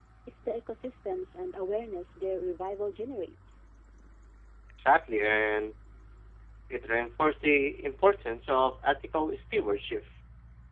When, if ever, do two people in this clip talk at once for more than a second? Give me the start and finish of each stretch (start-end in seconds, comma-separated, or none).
none